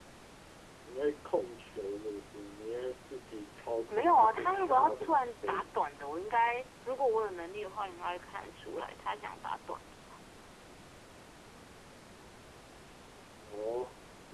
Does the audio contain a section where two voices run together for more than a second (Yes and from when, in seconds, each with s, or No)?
Yes, from 3.9 s